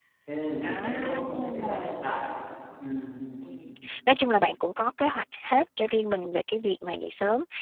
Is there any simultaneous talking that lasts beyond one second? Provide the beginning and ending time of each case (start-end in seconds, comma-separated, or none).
0.6-1.9